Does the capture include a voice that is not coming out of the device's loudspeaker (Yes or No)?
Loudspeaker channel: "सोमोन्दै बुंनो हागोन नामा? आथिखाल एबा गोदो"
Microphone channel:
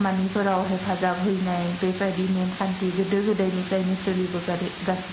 Yes